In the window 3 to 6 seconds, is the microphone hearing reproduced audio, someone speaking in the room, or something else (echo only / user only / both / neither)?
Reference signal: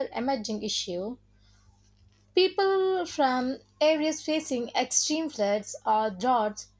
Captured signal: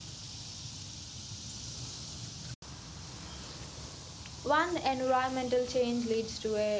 user only